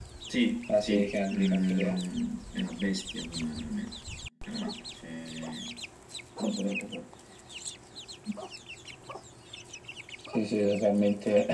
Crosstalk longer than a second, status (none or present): present